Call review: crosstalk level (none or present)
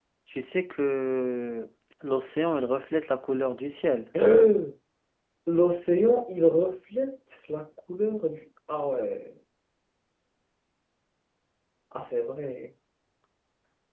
none